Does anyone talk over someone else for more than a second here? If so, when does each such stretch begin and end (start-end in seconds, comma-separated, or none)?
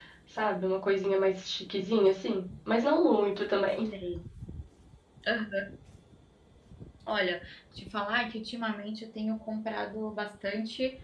none